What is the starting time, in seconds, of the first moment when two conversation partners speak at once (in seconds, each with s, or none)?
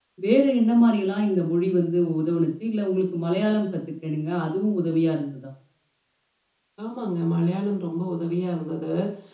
none